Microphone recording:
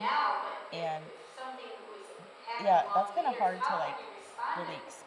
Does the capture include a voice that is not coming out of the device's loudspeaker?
Yes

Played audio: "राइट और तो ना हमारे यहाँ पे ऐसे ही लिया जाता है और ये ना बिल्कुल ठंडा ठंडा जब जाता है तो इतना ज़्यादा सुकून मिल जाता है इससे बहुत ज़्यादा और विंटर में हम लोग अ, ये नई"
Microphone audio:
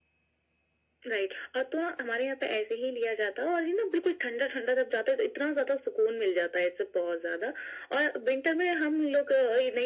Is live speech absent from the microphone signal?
Yes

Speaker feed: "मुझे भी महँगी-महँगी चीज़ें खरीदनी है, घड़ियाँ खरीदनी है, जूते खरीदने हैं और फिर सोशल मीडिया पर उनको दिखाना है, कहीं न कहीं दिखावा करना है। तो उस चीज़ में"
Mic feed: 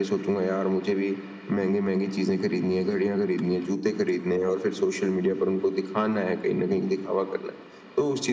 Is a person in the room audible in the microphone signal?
No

